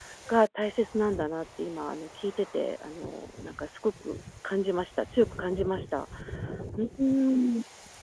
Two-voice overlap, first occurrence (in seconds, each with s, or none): none